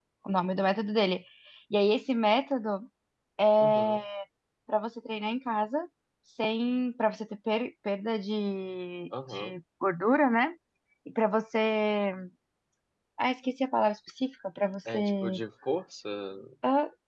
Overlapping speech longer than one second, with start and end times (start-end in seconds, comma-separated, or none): none